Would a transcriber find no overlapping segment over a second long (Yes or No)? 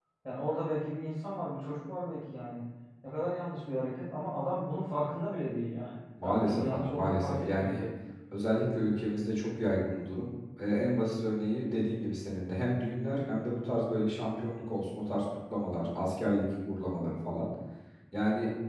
No